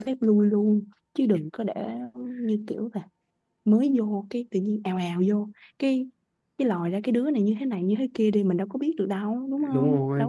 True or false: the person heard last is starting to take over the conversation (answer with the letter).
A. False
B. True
B